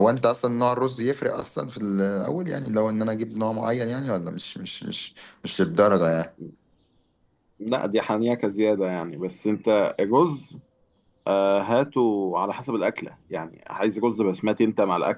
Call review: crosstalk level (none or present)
none